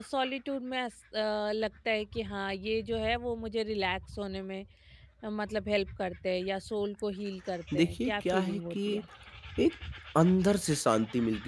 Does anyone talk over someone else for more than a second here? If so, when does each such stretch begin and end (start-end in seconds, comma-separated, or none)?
7.8-9.0